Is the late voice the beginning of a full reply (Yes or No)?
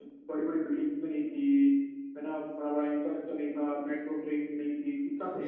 Yes